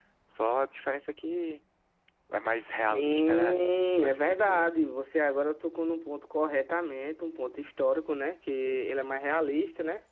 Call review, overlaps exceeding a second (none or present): present